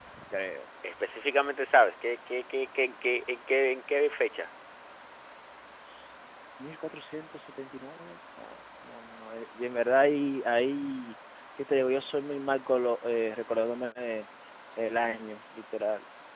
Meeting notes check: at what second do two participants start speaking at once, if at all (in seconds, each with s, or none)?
none